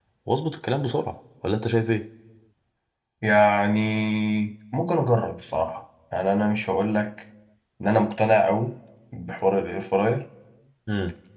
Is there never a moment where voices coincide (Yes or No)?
Yes